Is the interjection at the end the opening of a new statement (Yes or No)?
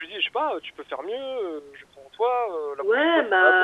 Yes